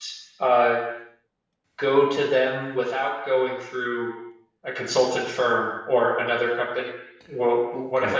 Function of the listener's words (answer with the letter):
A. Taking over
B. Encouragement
A